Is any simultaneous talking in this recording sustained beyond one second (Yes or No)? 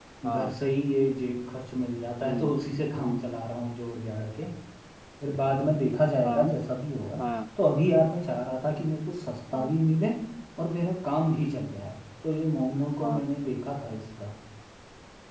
No